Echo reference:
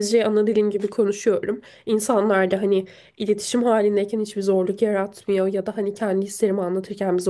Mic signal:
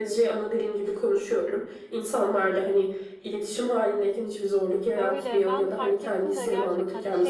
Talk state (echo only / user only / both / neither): both